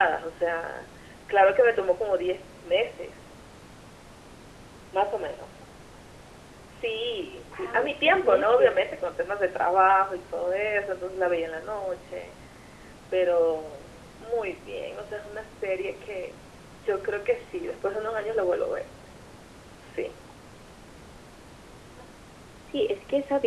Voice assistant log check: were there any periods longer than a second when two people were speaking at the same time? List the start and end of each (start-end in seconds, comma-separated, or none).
7.6-8.8